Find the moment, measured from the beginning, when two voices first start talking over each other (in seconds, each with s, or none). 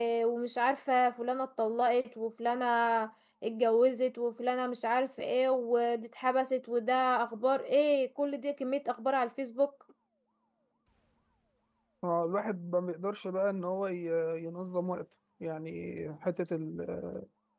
none